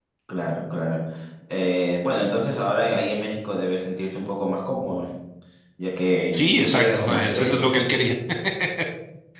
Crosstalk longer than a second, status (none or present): present